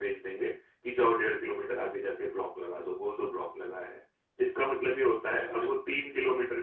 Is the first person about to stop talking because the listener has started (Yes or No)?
No